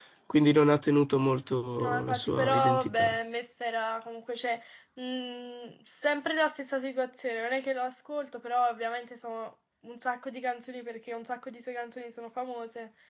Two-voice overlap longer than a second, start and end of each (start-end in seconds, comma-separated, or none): 1.8-3.2